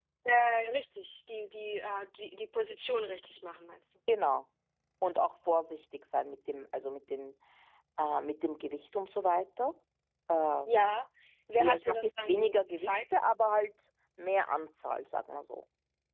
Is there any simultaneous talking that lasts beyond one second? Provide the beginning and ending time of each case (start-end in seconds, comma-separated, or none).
11.6-12.9